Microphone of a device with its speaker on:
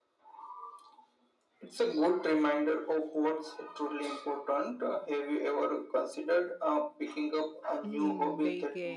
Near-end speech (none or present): present